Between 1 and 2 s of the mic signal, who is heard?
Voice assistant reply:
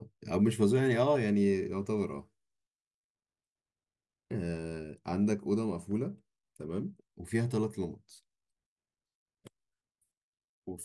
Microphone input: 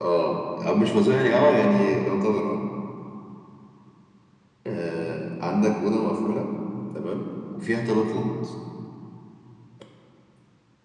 echo only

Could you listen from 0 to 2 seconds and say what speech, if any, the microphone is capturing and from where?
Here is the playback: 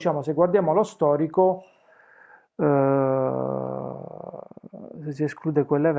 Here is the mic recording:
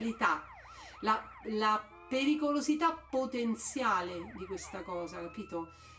user only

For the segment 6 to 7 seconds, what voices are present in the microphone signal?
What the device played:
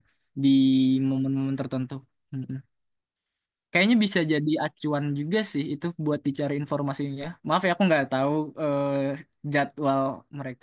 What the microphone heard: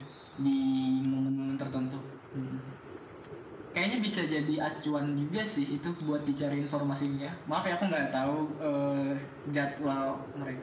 echo only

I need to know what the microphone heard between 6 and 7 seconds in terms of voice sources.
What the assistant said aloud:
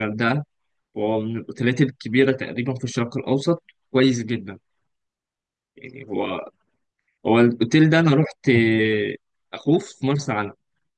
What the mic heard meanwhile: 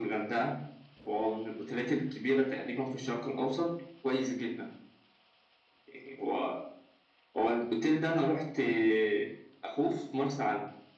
echo only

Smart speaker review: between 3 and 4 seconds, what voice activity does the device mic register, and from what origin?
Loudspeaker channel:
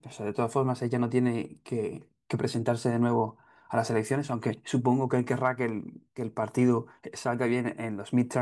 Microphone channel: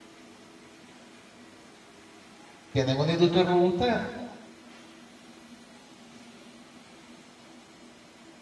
user only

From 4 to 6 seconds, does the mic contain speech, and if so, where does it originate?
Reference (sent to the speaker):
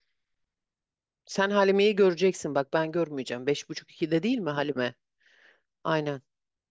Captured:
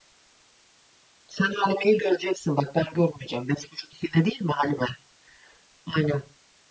echo only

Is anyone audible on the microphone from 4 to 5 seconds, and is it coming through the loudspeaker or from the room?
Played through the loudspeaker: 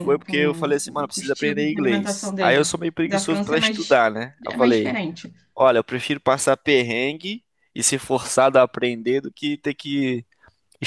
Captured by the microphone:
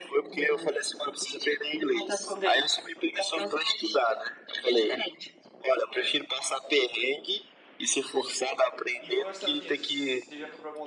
echo only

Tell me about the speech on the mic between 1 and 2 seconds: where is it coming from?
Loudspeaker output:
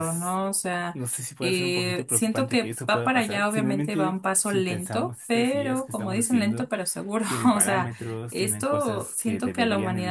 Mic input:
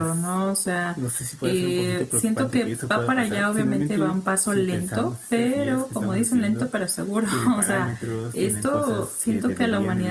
echo only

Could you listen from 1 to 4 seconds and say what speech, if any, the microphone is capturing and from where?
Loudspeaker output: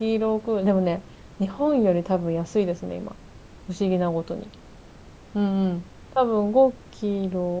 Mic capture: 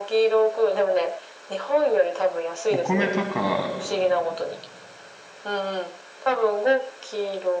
both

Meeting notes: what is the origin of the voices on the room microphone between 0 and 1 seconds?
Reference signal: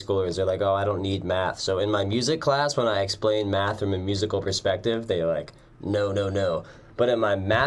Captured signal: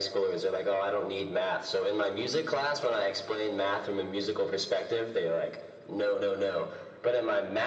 echo only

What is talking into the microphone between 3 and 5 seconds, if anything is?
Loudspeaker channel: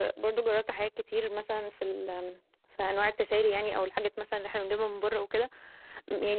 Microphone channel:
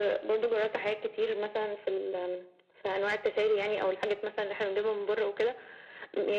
echo only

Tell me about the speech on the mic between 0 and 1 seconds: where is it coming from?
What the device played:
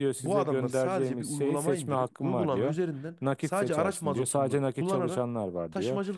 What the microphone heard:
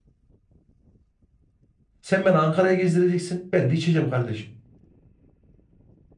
neither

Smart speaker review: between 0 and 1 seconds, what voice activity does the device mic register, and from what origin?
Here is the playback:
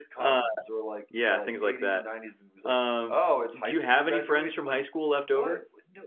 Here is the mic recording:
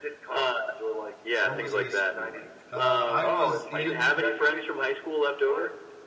echo only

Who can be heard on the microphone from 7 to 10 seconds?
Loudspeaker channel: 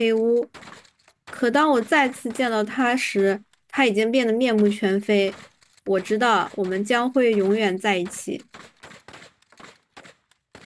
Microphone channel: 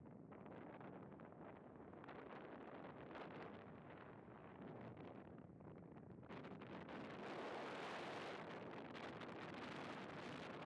neither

